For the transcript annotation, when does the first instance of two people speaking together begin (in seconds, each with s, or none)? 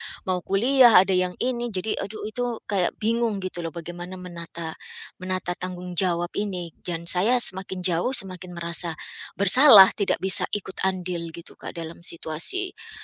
none